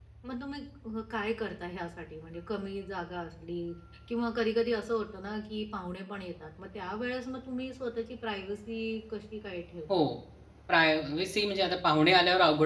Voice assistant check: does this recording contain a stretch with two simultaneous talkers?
No

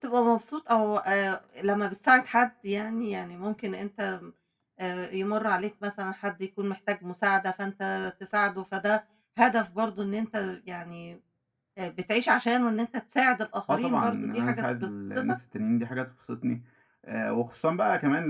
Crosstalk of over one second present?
Yes, from 13.7 s

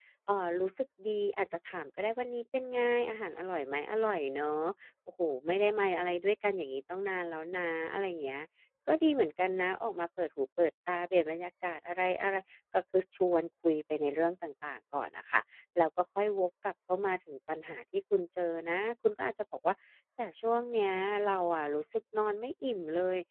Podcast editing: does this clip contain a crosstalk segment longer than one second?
No

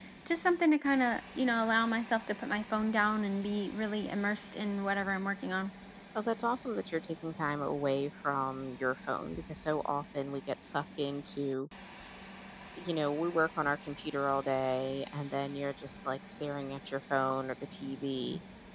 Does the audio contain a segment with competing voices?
No

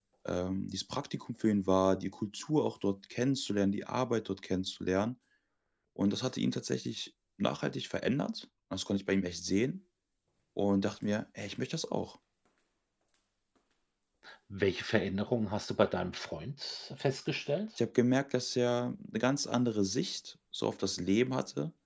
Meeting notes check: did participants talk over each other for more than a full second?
No

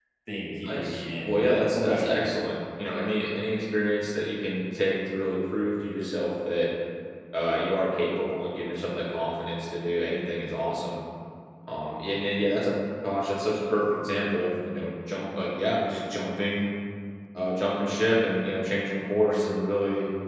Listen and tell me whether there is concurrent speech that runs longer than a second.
Yes, from 0.7 s

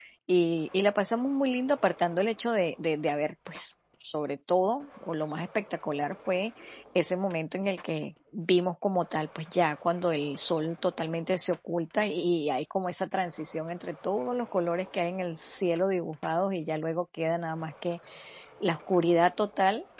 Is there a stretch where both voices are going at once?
No

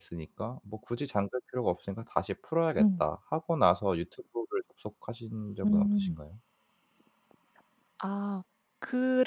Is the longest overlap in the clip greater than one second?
No

